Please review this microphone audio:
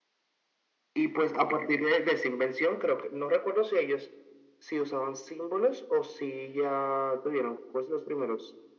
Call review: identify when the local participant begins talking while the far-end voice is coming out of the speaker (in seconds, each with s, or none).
none